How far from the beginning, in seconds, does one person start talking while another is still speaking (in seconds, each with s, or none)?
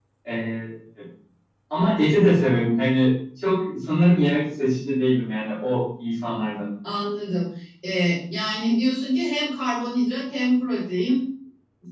none